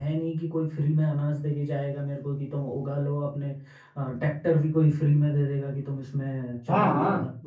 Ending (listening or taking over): taking over